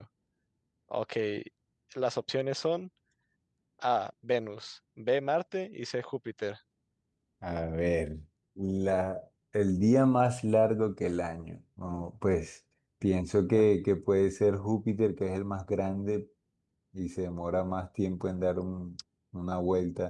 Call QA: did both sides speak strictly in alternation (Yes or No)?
Yes